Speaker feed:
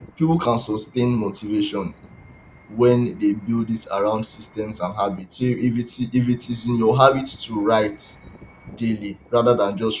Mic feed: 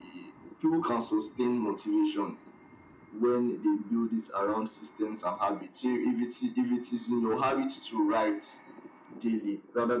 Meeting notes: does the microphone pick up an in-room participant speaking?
No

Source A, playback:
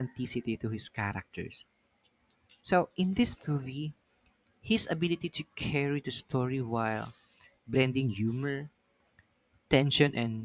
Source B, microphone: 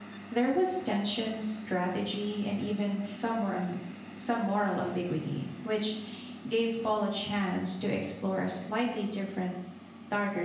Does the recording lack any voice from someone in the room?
No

